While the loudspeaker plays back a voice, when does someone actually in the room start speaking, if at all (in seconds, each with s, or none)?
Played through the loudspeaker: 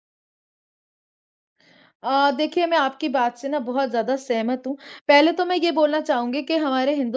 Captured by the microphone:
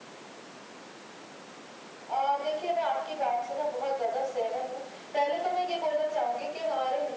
none